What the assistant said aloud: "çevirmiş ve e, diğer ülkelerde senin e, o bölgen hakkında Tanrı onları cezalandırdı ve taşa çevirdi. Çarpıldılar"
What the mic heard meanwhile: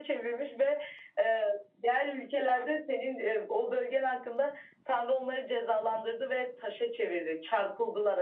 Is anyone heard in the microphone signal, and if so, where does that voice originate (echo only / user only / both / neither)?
echo only